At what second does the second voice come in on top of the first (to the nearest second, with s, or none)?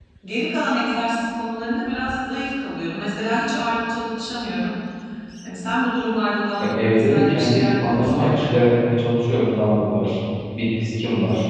7 s